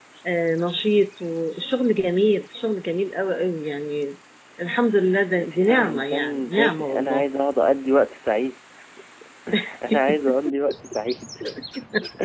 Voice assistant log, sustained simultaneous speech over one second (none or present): present